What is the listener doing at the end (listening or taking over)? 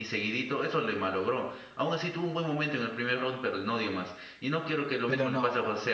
listening